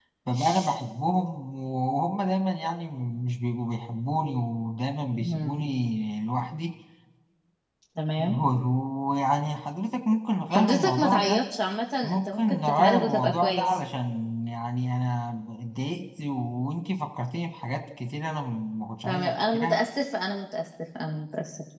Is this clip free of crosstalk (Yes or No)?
No